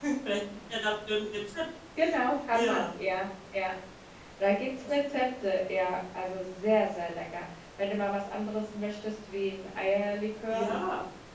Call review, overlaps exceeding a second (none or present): none